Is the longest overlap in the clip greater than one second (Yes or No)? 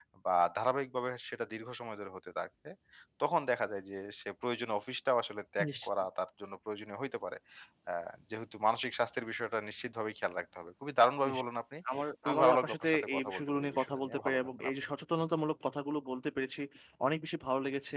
Yes